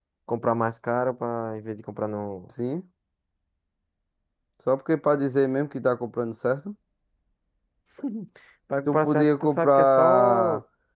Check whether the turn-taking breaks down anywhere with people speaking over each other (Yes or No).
Yes